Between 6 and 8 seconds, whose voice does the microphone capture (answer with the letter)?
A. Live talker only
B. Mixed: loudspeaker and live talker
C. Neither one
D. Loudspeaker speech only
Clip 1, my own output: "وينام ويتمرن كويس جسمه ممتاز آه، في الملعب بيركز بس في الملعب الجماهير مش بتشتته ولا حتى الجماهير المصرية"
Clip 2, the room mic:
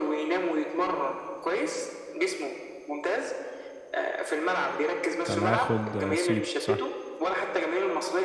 B